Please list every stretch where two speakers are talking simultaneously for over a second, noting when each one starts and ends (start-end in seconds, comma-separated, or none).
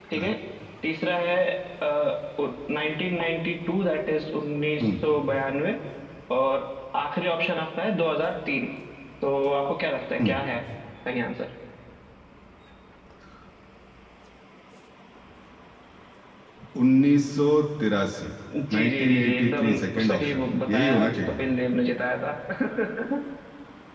18.7-21.4